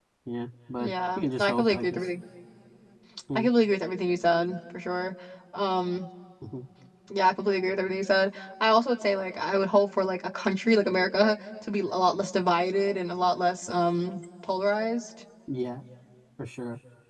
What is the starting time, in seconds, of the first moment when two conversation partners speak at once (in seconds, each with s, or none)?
0.8 s